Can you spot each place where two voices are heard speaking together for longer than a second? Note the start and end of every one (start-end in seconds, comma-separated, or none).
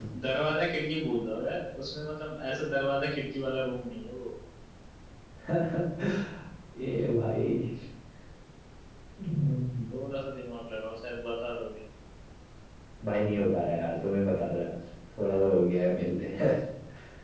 none